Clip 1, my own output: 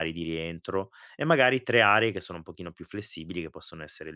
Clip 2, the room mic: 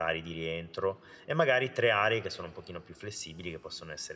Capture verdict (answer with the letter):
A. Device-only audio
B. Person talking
A